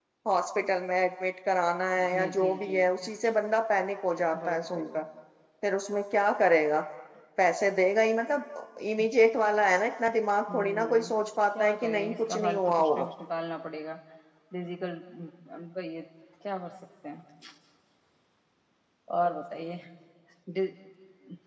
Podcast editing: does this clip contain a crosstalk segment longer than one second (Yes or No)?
Yes